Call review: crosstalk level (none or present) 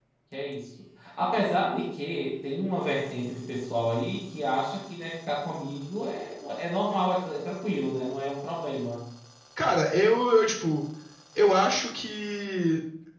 none